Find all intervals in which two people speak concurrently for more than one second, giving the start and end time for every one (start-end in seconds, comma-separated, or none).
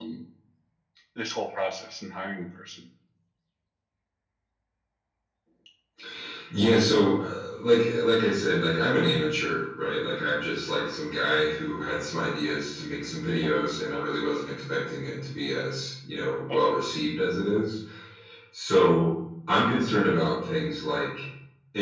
none